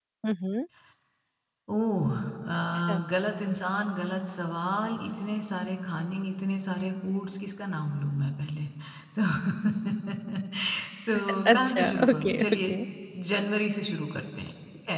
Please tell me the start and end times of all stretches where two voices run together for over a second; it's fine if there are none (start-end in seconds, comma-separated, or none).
11.5-12.7